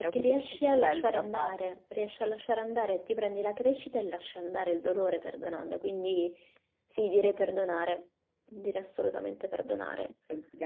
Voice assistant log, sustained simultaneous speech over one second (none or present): present